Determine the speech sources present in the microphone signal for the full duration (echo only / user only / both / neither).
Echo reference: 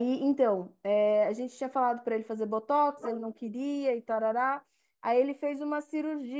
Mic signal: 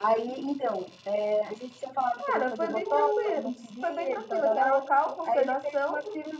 both